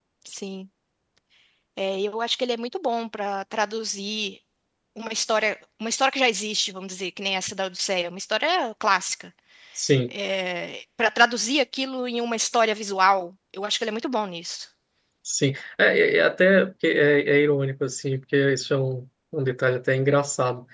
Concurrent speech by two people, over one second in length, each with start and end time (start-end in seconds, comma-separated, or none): none